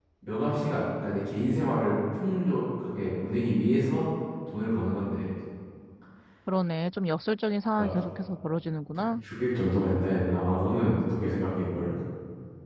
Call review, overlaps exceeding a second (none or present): none